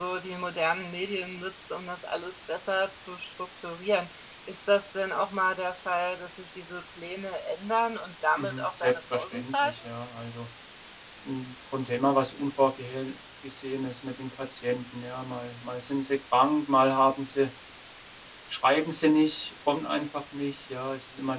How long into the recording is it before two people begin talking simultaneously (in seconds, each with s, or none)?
8.4 s